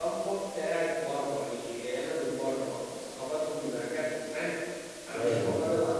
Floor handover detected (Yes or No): No